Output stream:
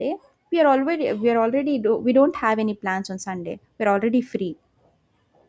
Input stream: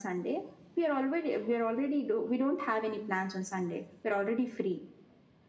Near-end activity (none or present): none